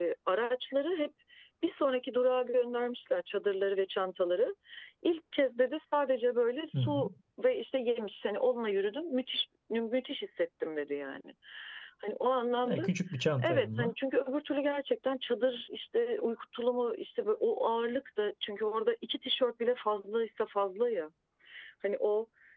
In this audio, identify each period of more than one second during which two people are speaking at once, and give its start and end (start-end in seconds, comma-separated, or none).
none